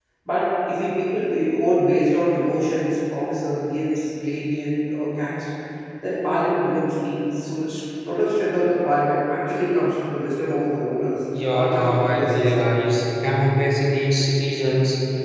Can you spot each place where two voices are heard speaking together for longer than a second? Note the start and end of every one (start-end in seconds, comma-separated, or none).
11.4-12.7